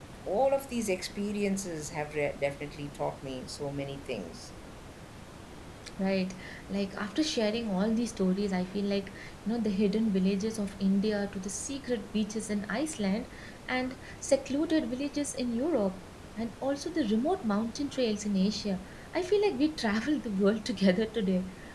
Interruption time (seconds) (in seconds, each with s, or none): none